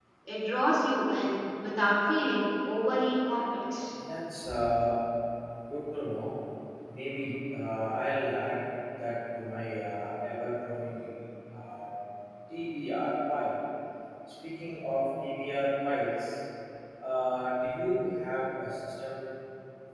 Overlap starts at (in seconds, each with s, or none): none